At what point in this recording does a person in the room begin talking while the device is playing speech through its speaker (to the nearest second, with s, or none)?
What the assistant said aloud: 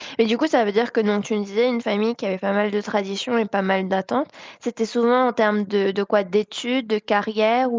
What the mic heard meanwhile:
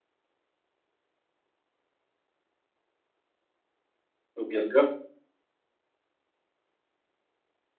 4 s